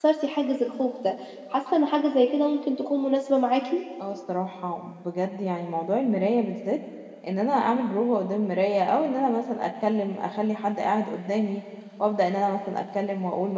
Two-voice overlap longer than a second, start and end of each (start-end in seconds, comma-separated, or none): none